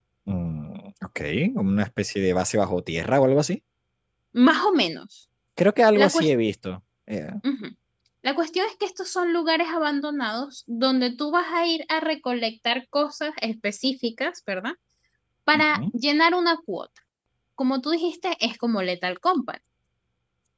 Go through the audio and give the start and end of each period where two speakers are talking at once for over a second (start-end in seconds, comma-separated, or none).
none